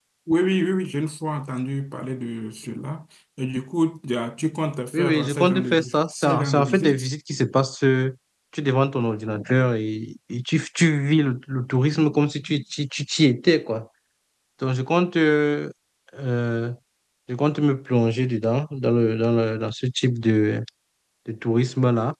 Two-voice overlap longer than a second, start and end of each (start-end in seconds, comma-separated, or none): 4.9-7.1